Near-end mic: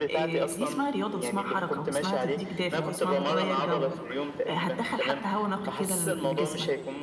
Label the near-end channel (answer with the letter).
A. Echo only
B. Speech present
B